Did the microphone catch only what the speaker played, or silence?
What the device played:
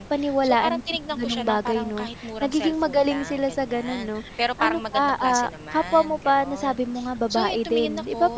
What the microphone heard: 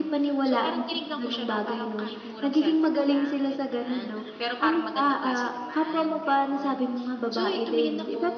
Yes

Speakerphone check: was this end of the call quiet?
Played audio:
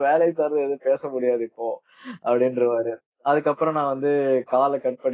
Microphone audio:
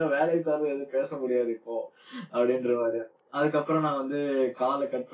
Yes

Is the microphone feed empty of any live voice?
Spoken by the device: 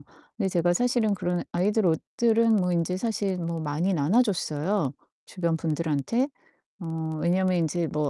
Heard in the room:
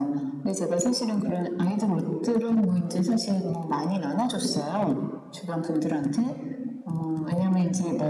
Yes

